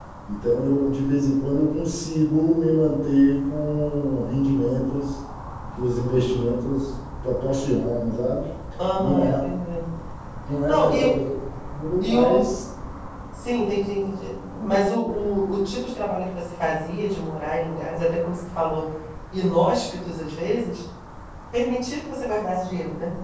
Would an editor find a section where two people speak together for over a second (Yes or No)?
No